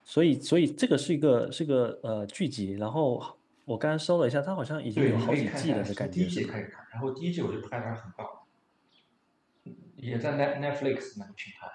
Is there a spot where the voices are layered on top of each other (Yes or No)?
Yes